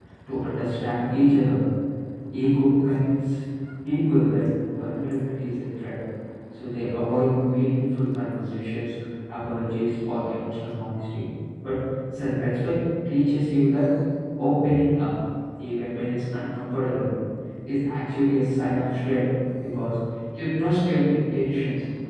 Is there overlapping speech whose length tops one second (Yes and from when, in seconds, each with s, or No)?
No